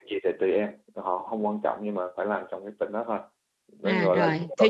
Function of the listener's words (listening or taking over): taking over